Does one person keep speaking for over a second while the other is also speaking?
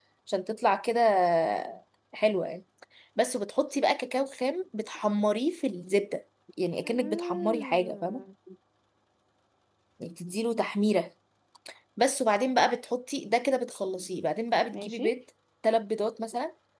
Yes, from 6.8 s

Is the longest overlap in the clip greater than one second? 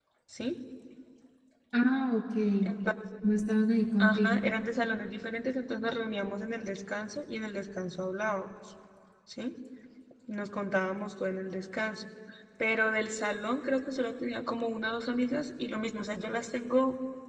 No

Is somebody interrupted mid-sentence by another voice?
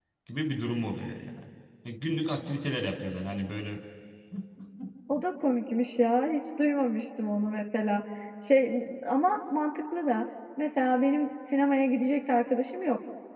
No

